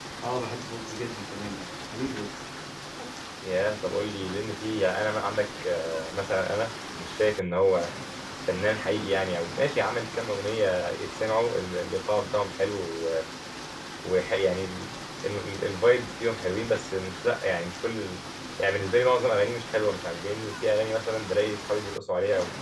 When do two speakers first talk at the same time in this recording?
none

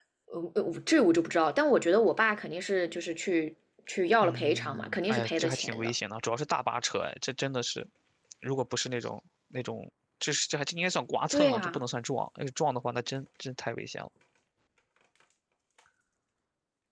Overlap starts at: 4.2 s

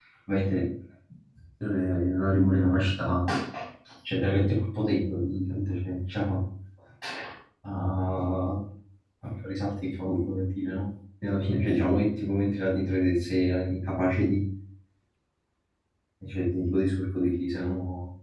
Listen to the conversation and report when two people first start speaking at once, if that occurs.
none

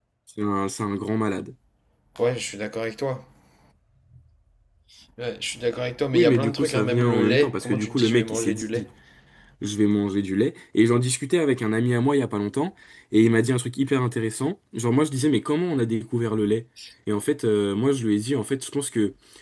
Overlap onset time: 6.1 s

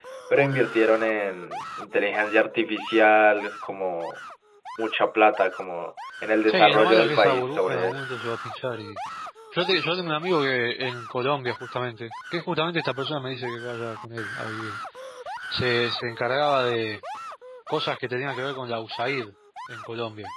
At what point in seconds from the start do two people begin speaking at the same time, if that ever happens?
6.5 s

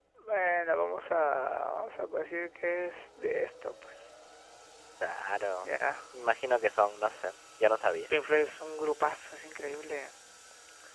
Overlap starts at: none

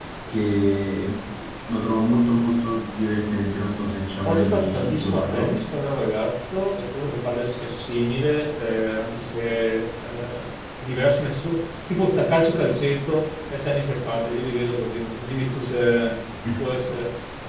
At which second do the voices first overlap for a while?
4.2 s

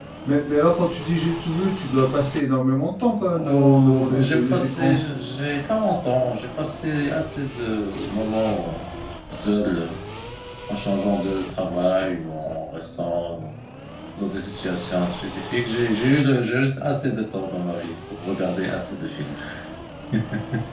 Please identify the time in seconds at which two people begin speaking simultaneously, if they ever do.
3.3 s

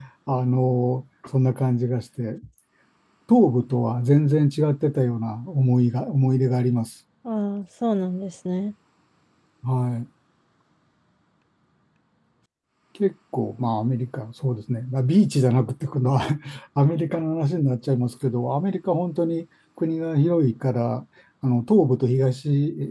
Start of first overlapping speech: none

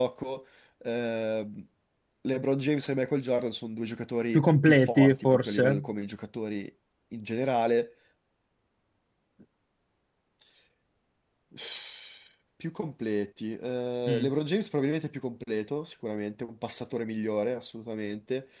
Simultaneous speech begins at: 4.3 s

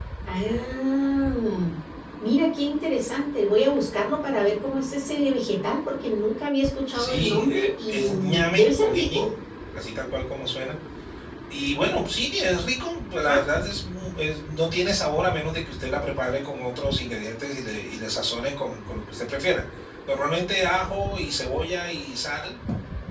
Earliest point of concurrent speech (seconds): 6.9 s

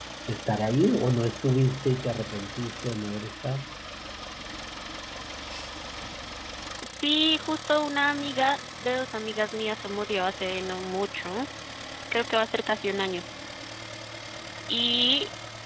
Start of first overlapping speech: none

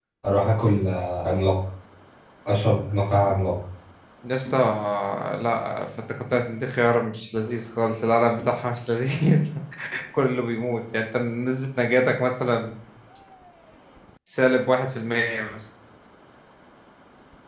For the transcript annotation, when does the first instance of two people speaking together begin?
none

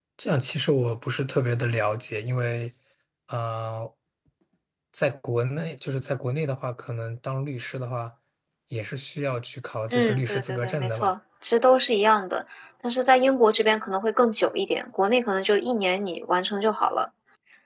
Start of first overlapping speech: 9.9 s

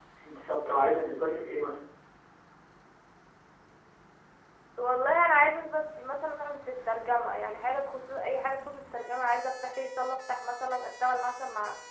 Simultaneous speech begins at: none

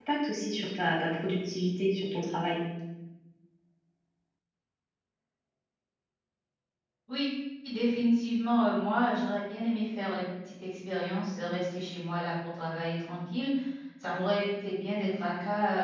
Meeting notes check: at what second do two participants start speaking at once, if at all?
none

